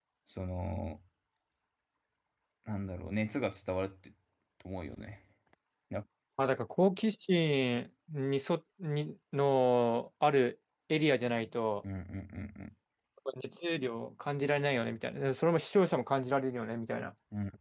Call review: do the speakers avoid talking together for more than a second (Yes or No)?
Yes